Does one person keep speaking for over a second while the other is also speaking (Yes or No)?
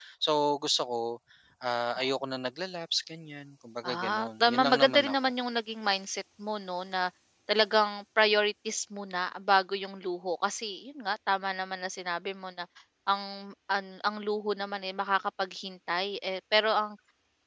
Yes